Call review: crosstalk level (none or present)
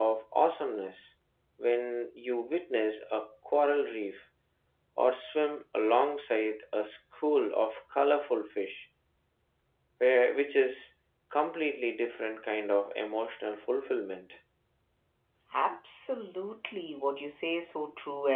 none